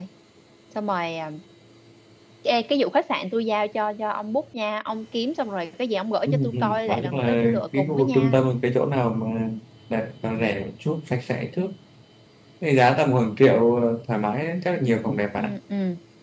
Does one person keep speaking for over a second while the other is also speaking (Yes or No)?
Yes